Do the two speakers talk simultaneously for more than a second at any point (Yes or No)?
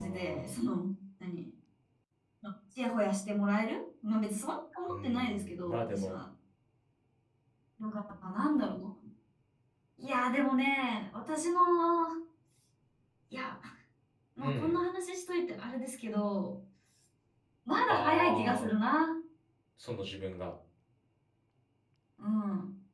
Yes